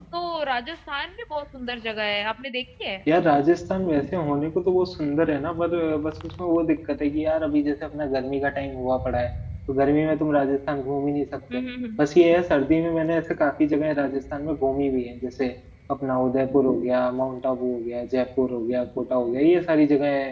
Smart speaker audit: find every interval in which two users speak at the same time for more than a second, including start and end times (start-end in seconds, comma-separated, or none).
none